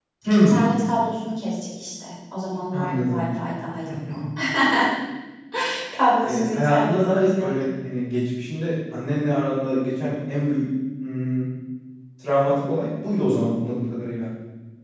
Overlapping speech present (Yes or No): Yes